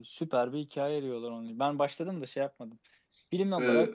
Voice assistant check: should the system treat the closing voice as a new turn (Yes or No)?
Yes